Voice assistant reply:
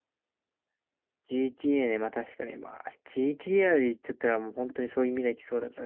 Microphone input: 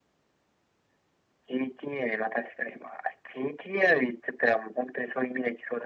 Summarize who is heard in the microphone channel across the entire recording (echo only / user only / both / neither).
echo only